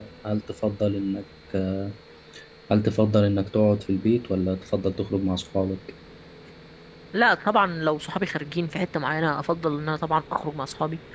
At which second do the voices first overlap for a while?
none

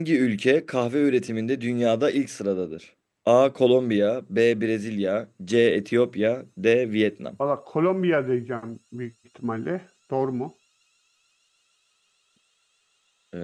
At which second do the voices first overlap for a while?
none

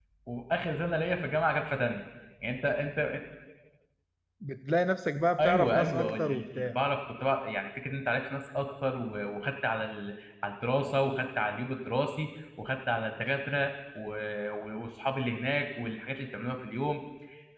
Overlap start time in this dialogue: 5 s

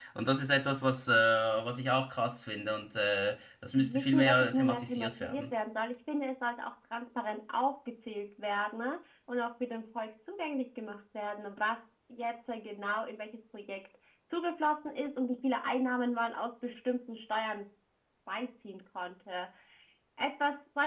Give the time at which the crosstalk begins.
4 s

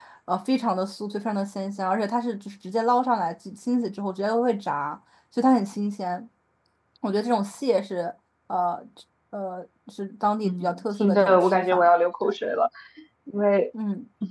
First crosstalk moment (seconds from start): 10 s

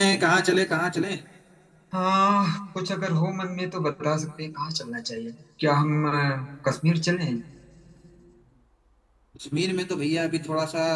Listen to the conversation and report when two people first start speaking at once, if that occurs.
none

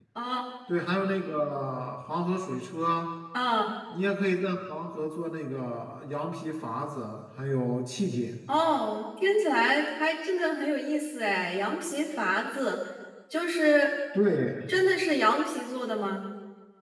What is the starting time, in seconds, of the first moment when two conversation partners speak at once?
none

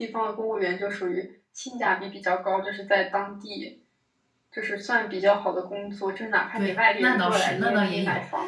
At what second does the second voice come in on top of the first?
7 s

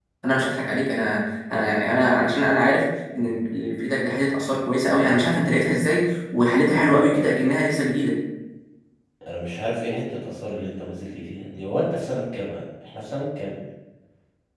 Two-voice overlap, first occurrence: none

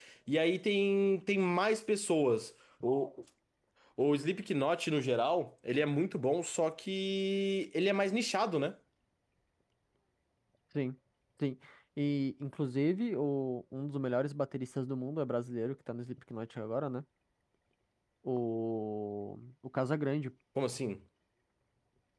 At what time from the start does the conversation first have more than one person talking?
none

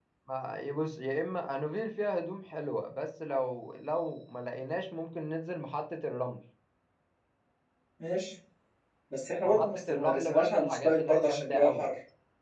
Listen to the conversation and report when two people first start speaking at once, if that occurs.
9 s

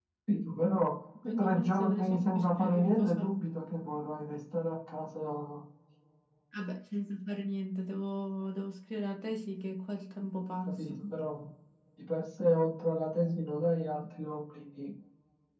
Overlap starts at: 1 s

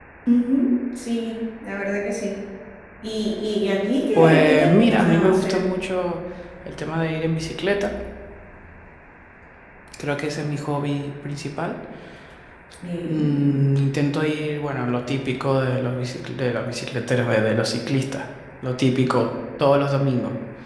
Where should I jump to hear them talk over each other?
4 s

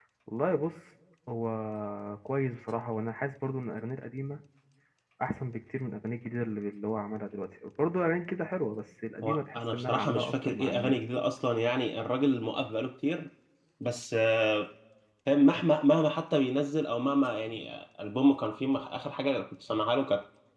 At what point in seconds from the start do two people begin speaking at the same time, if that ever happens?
9 s

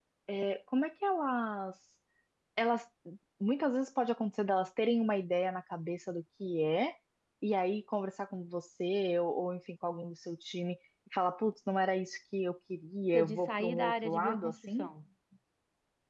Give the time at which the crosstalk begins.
13 s

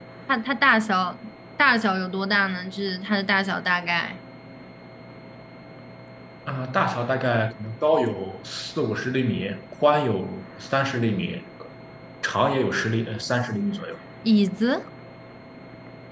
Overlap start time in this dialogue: none

